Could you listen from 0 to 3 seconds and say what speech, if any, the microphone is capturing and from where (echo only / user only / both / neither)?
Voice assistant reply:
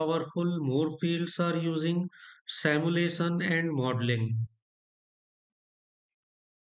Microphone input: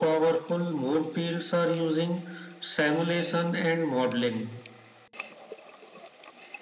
echo only